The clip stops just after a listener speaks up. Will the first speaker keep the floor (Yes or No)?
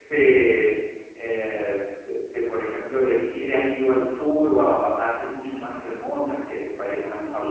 No